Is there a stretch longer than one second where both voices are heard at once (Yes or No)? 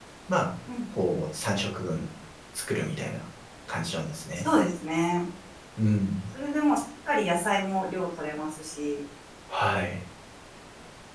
No